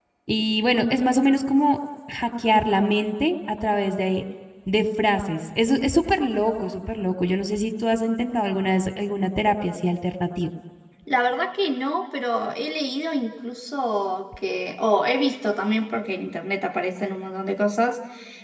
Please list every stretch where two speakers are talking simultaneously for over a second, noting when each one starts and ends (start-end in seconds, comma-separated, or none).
none